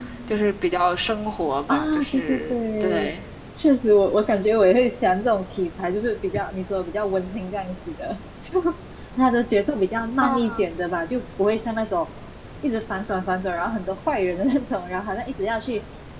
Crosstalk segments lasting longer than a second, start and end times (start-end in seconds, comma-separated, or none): 1.7-3.1